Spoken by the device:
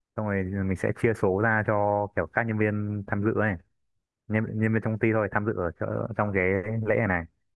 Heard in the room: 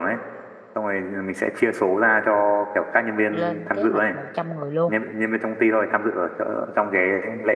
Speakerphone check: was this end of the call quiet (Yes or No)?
No